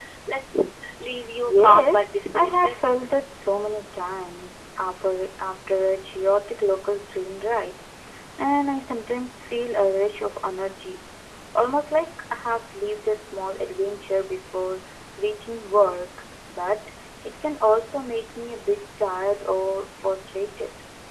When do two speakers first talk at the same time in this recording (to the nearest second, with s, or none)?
1 s